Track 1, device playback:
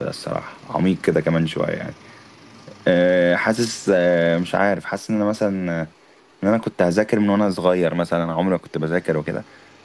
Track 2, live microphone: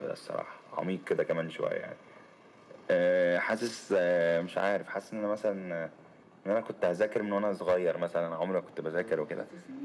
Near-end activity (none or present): present